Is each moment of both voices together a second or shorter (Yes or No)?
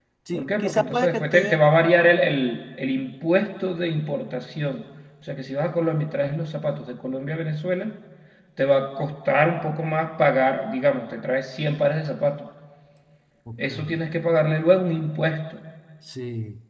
No